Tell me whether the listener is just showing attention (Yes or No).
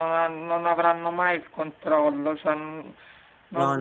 Yes